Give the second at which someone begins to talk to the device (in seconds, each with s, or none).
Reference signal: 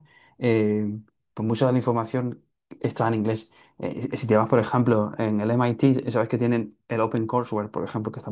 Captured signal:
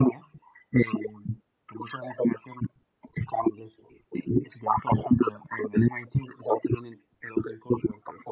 none